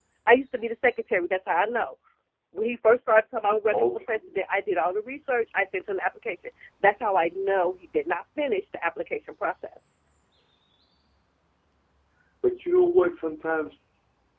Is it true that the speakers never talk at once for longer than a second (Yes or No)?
Yes